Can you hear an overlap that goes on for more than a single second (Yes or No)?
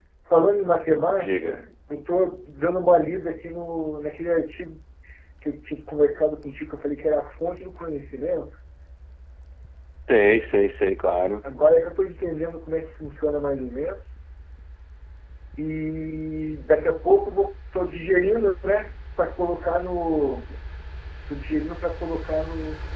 No